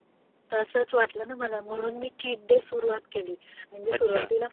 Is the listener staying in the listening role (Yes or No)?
Yes